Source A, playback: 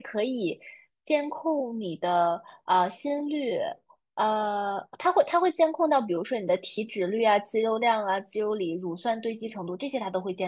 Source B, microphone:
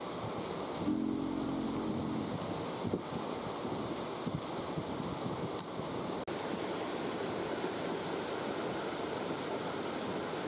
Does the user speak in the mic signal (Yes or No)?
No